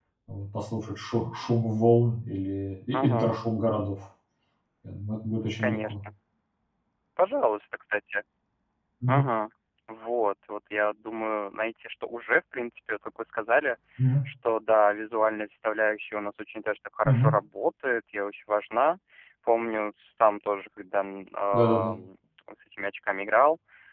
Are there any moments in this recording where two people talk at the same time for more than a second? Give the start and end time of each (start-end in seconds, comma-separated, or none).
none